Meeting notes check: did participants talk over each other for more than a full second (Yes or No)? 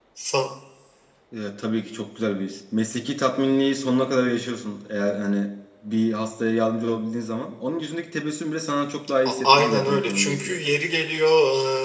Yes